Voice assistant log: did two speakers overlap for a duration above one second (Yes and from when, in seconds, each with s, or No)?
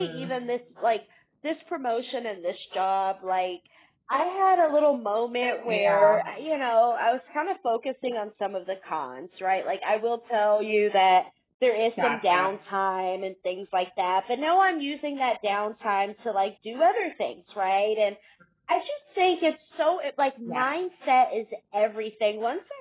No